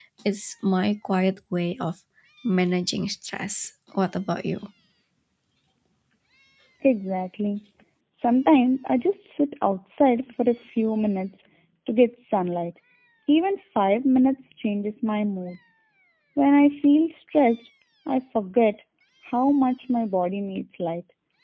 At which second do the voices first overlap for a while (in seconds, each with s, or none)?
none